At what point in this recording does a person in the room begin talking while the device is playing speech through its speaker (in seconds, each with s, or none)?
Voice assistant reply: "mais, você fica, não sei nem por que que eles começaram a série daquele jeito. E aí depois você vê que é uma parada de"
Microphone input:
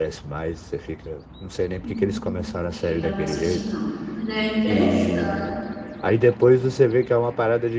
1.8 s